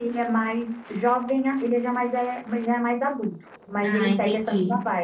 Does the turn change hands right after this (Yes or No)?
No